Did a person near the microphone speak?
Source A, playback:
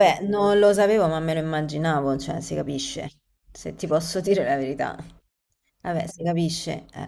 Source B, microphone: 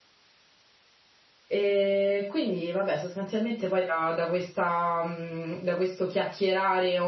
Yes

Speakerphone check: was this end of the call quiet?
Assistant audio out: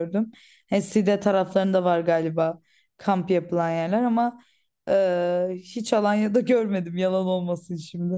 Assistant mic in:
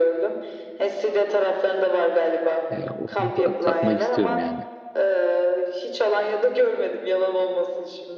No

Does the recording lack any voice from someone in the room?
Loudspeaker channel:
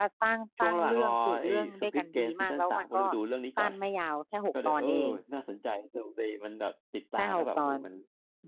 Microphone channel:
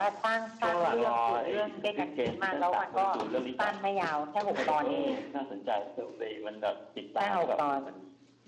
Yes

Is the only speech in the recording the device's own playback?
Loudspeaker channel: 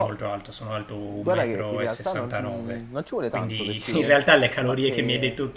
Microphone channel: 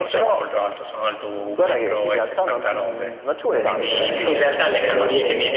No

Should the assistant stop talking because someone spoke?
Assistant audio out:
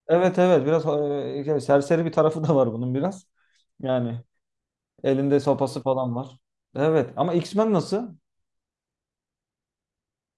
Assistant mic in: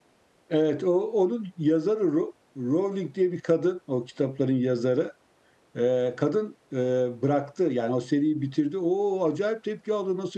Yes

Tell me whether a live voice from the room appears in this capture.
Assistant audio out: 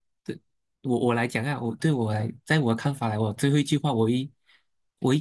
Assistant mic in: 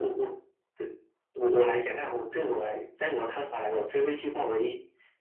No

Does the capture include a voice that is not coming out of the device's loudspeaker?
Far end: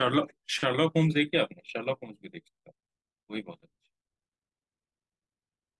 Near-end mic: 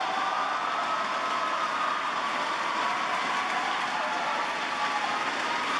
No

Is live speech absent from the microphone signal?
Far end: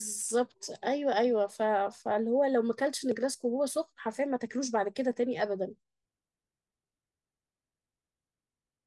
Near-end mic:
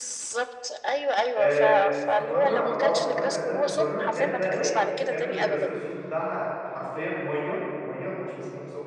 No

